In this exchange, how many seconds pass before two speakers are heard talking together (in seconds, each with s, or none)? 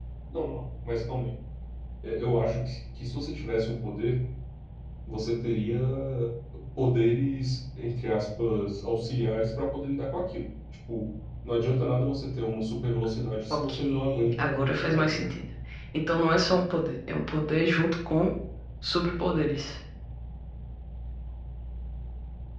13.5 s